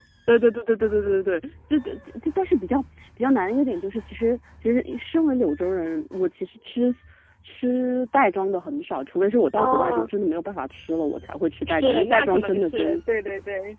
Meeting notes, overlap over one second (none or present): present